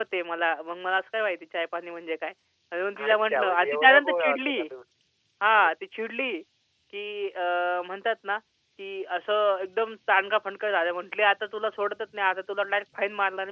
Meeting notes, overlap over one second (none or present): present